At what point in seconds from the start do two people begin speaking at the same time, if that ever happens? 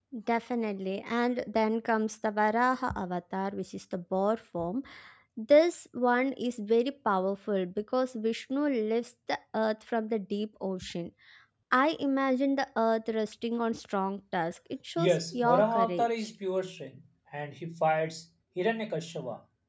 15.0 s

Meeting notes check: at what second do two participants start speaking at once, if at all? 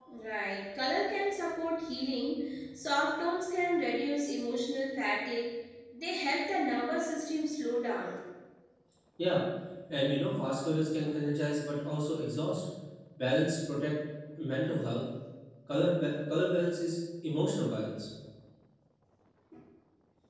none

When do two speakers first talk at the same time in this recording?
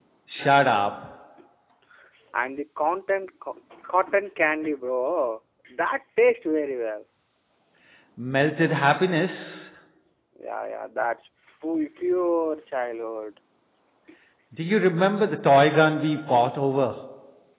none

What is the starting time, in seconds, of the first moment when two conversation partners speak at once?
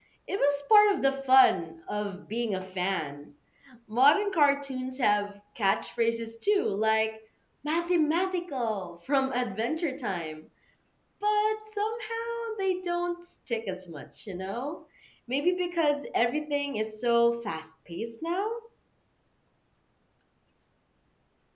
none

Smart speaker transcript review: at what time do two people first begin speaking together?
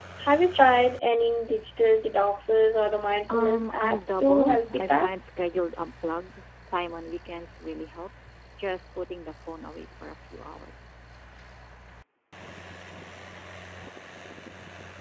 3.3 s

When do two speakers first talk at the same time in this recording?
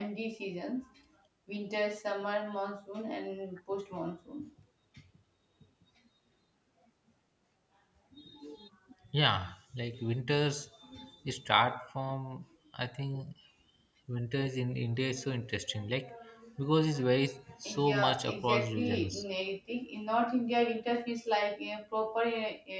17.6 s

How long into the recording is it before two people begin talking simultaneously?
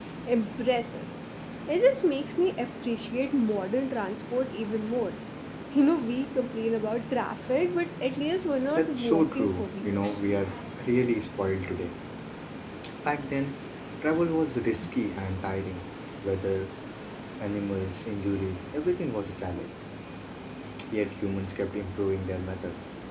8.6 s

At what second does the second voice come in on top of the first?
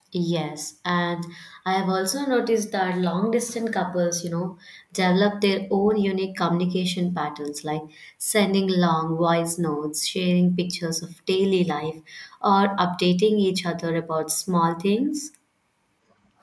none

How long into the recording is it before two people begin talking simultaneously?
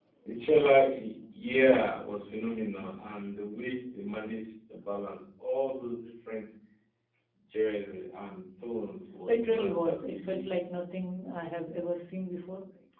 9.3 s

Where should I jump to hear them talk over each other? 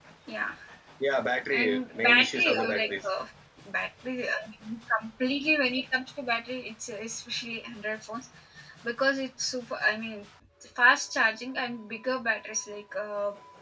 1.5 s

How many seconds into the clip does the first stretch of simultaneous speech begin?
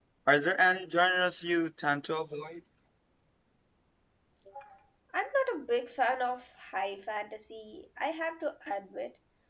none

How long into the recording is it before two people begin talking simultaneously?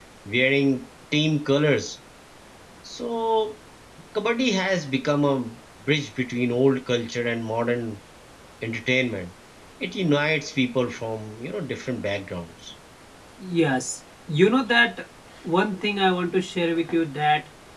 none

